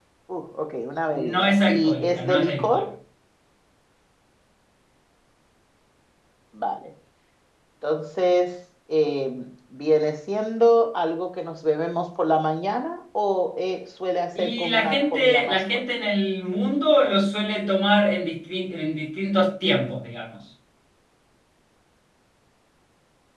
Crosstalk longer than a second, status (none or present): present